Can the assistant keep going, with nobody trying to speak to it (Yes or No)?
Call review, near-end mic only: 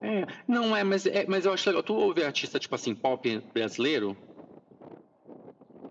Yes